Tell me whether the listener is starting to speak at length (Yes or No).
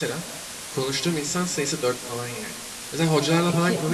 No